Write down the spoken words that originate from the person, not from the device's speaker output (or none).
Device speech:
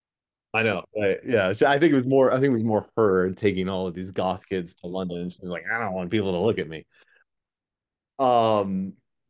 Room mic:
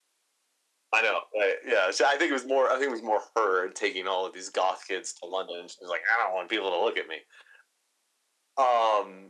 none